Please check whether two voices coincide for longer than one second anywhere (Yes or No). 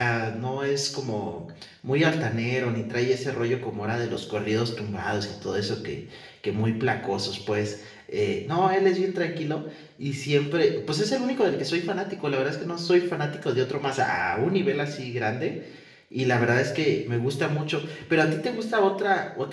No